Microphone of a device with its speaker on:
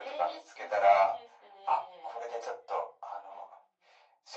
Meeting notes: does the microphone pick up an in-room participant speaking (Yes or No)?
No